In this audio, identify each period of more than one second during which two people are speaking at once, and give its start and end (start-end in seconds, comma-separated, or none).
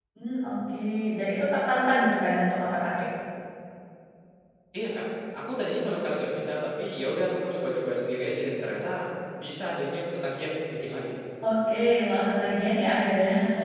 none